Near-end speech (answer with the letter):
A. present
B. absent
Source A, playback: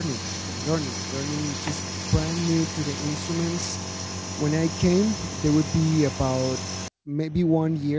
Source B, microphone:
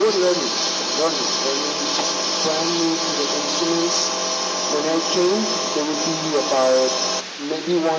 B